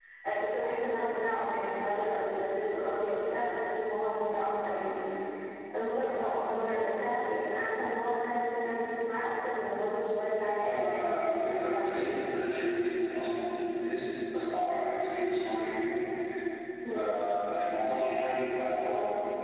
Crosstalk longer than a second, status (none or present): present